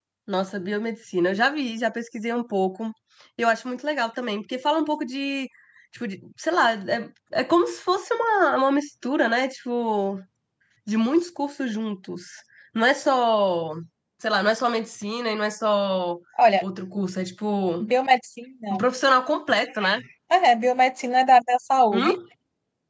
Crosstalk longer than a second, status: none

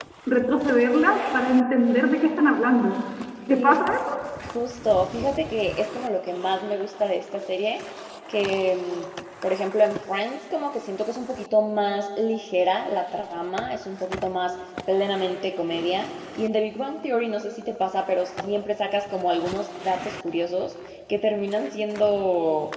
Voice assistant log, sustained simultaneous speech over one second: none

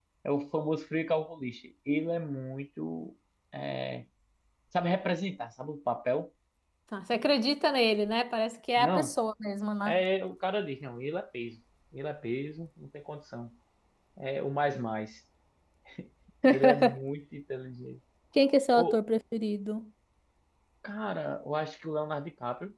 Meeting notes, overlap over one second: none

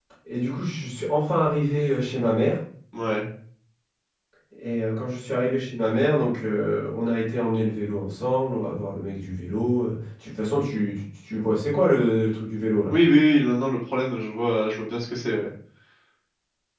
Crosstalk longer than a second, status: none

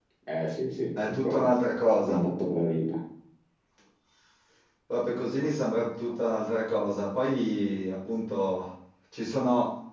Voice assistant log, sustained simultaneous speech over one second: none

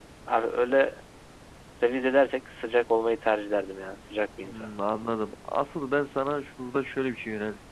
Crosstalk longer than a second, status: none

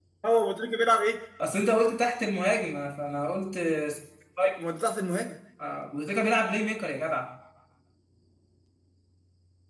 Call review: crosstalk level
none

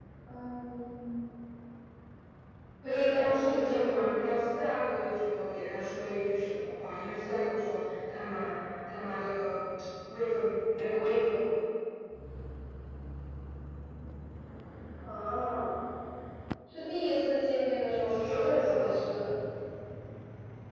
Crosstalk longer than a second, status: present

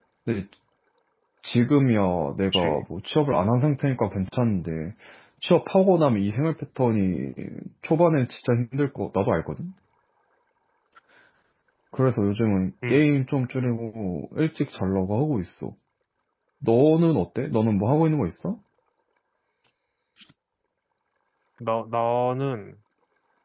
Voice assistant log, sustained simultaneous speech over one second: none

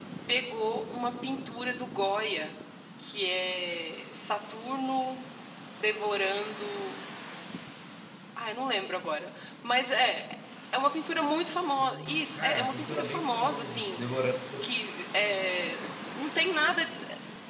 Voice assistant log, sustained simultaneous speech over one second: present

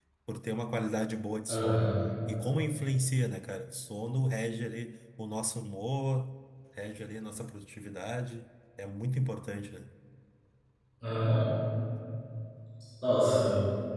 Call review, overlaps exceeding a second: none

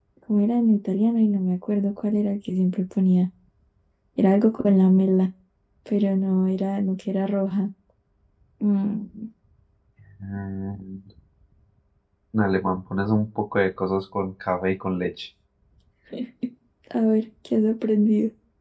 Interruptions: none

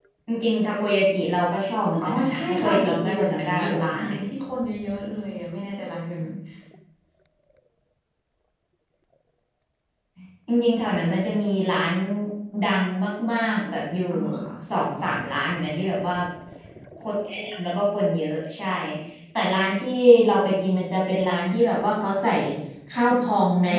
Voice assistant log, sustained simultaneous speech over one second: present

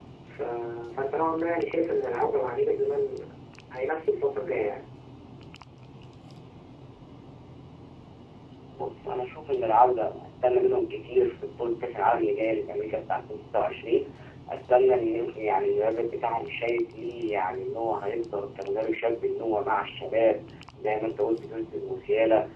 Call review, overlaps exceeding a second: none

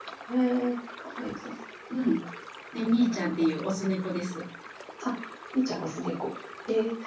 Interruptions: none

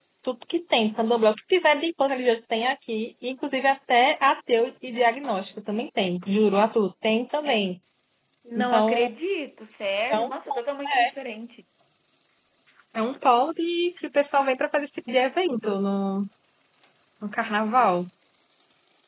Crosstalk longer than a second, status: none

